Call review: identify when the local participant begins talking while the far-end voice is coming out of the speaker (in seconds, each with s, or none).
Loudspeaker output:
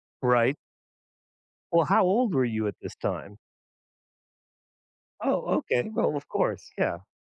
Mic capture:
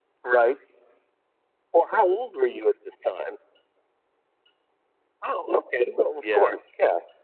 6.2 s